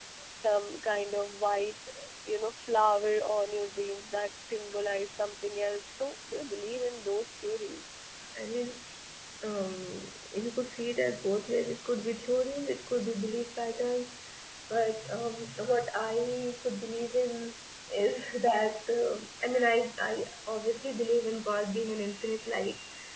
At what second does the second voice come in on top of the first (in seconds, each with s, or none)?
none